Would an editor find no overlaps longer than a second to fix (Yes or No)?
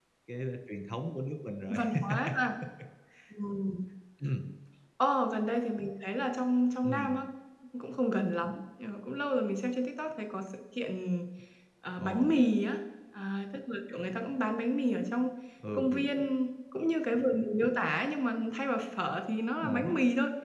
Yes